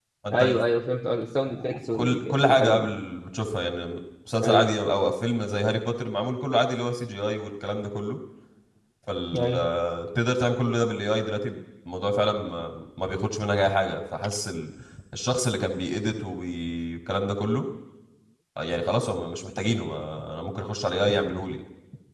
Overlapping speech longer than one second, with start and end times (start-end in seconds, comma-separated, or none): 1.5-2.9